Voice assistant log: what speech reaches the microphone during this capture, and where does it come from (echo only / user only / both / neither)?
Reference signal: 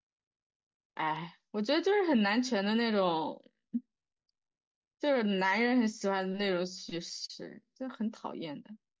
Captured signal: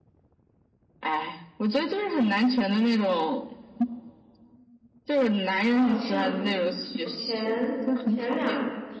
both